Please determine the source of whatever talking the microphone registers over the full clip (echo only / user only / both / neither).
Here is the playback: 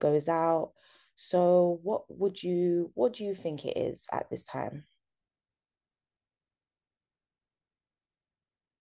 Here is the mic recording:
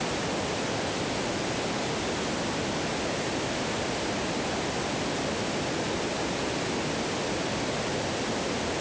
neither